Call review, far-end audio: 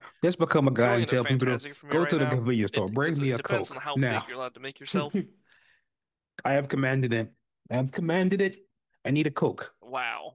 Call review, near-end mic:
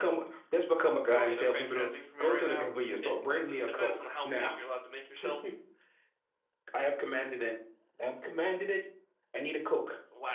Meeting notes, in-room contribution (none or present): none